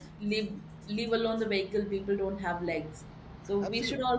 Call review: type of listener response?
listening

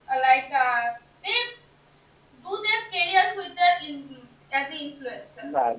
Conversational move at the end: taking over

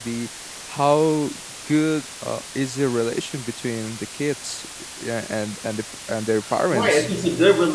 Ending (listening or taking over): taking over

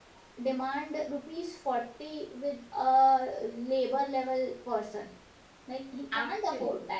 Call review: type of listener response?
listening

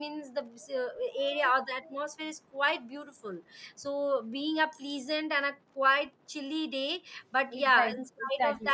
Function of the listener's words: taking over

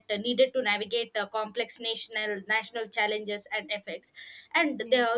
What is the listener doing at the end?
listening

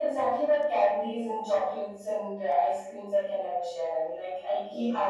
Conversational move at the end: listening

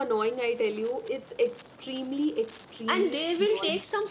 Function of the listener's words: taking over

